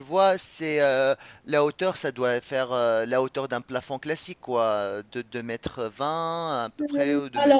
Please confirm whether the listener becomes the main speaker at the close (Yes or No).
Yes